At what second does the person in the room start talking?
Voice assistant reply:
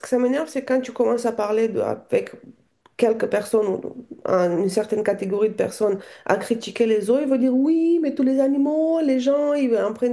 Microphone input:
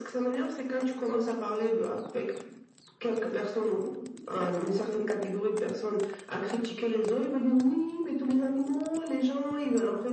none

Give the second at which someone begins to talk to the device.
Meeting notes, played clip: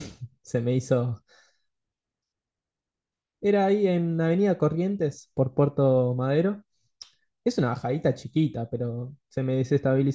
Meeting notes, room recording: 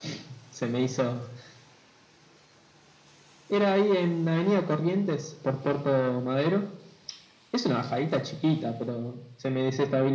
none

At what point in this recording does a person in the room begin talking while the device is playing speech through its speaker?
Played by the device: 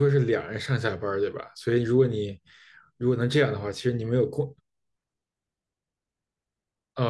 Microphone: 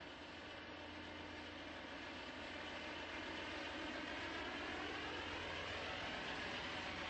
none

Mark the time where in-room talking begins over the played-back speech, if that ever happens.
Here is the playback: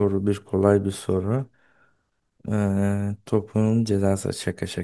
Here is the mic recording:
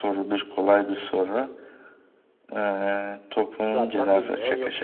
4 s

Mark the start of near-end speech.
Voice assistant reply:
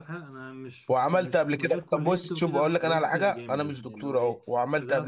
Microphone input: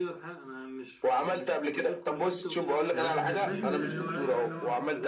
3 s

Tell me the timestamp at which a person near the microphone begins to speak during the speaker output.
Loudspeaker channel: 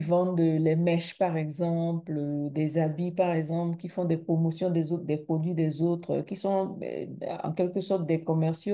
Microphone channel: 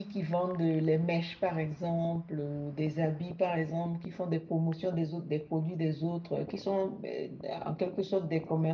none

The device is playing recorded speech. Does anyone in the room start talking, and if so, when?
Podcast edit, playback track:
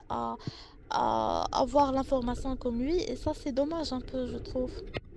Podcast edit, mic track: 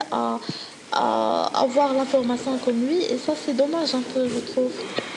none

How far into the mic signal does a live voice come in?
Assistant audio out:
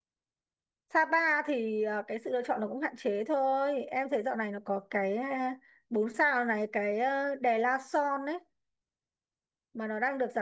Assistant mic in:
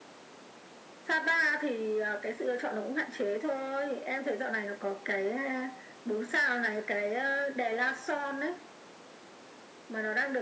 none

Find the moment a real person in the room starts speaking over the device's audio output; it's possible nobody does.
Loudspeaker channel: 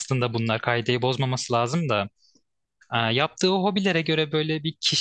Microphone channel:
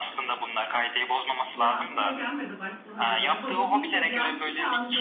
2 s

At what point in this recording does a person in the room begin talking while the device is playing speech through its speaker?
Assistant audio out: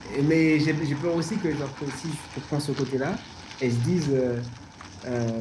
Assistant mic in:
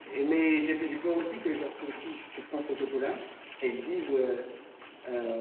none

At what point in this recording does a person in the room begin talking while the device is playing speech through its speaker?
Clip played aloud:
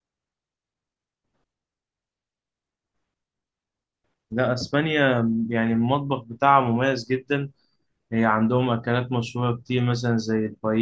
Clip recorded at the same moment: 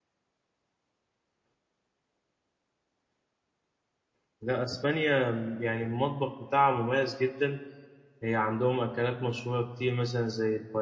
none

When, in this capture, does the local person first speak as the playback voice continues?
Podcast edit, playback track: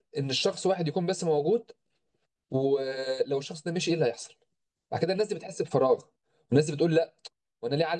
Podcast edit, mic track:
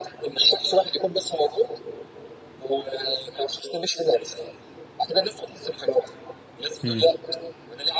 7 s

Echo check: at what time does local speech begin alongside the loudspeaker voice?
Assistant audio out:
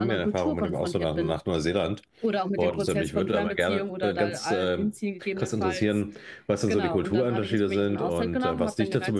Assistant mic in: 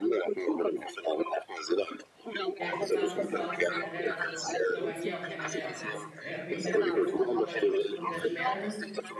3 s

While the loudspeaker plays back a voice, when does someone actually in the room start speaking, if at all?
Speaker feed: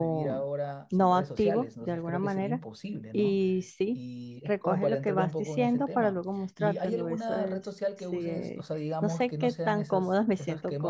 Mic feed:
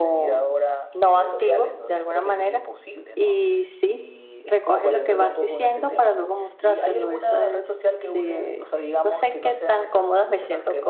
none

